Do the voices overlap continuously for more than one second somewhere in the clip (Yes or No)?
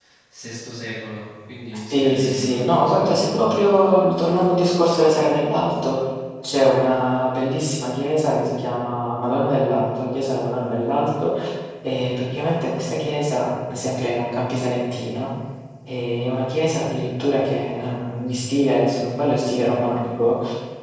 Yes